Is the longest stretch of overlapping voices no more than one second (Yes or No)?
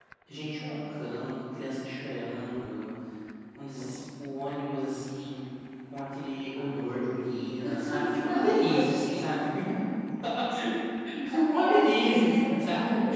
No